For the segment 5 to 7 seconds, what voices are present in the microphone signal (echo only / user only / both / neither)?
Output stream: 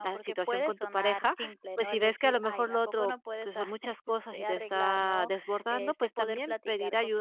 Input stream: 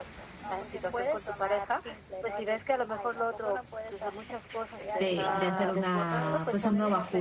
both